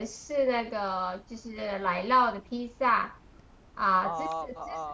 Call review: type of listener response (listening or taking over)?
listening